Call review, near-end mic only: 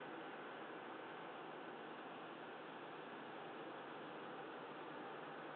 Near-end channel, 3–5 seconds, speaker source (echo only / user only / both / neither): neither